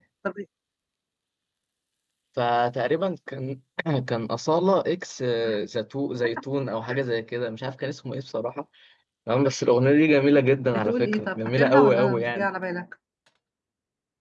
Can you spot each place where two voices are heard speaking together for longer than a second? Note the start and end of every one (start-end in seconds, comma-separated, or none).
10.7-12.5